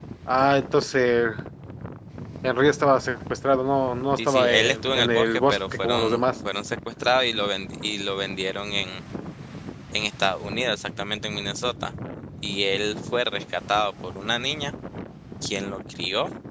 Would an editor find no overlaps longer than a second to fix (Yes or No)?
No